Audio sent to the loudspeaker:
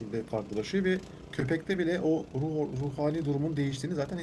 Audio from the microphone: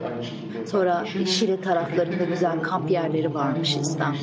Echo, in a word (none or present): present